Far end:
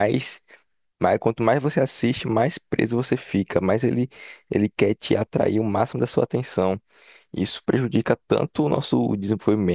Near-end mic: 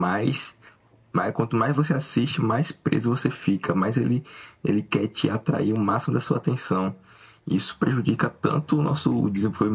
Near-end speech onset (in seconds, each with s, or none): none